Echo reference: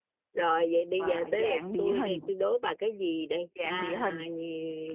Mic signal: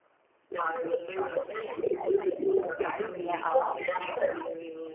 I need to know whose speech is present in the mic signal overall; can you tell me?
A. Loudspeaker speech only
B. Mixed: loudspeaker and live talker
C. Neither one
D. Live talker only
B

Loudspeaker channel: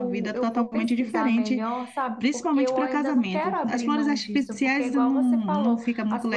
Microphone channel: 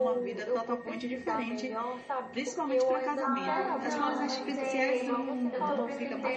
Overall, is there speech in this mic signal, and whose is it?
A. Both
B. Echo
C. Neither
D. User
A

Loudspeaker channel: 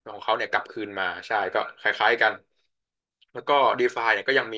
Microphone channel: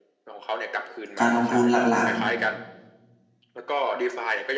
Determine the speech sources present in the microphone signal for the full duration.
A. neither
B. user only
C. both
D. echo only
C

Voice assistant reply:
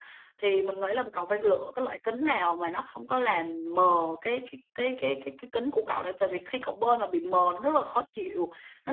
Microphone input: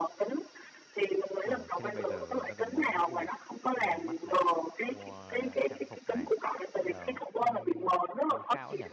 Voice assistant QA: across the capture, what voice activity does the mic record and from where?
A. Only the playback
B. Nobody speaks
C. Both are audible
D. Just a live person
C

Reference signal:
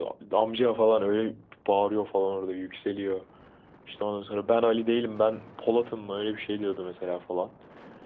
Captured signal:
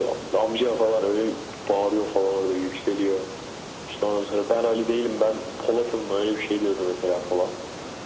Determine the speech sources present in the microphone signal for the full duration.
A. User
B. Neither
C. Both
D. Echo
D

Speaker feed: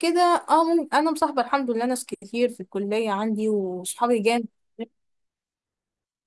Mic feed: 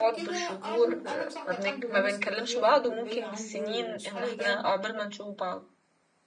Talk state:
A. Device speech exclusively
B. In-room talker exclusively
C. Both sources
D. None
C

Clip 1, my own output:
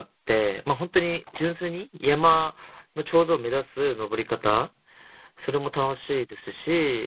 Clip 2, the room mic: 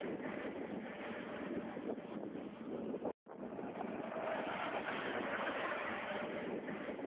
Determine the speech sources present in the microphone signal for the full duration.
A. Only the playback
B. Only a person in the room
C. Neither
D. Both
C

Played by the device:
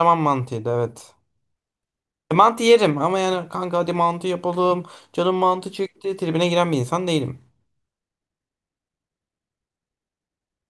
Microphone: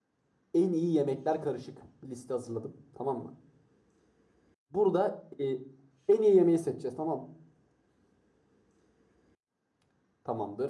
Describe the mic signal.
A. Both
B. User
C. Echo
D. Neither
B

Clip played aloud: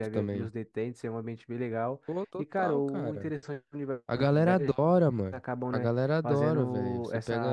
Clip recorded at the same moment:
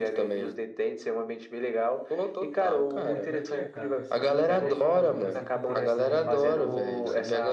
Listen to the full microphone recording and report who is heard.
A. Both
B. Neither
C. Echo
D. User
A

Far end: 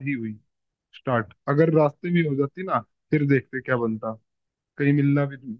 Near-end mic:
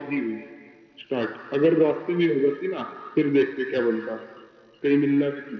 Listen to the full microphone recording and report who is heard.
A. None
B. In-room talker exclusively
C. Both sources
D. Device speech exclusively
D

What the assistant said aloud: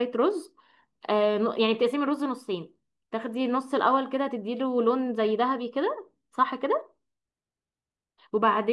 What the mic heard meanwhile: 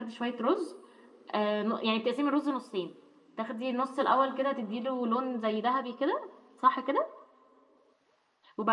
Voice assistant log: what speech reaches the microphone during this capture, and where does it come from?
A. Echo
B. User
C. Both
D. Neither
A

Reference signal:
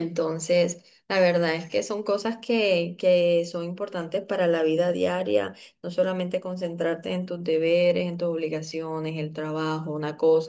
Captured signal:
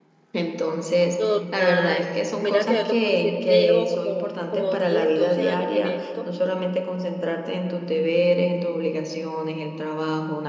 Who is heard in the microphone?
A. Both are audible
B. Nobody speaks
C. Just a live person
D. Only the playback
A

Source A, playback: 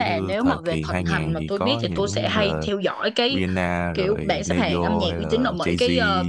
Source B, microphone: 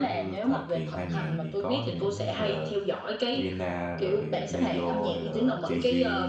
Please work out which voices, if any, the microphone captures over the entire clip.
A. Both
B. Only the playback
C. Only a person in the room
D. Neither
B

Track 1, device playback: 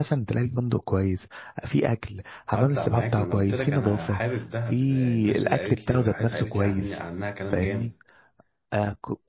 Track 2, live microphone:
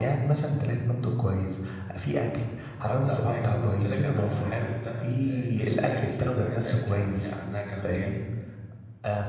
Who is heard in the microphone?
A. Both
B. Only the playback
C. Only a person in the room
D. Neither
B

